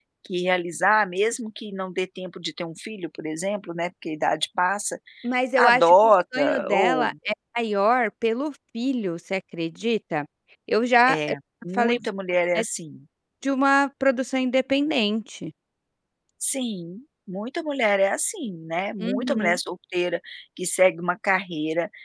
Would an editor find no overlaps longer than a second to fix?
No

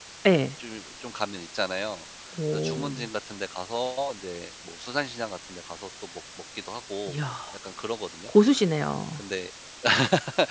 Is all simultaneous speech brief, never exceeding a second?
Yes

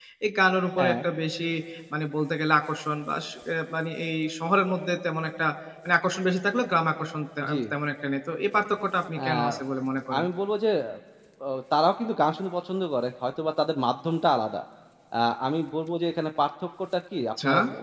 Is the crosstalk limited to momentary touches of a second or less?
Yes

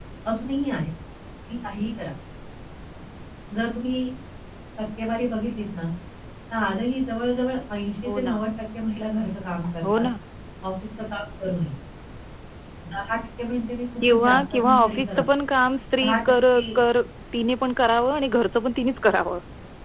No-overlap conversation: No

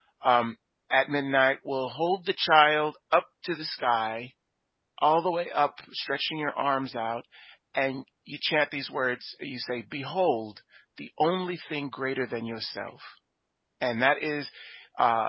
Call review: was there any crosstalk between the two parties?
No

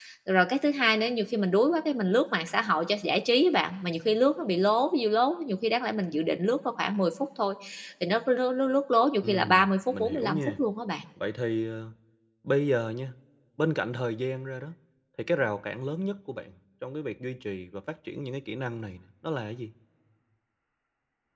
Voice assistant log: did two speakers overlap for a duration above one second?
Yes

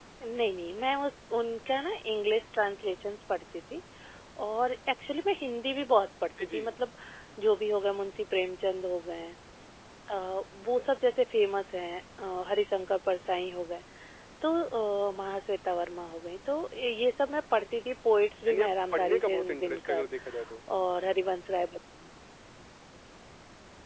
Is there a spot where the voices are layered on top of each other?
Yes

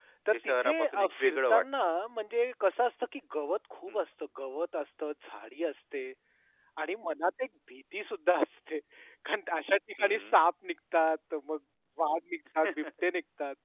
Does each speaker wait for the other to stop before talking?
No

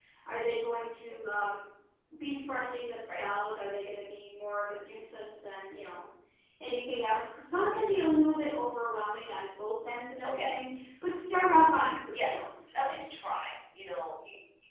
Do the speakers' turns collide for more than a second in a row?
No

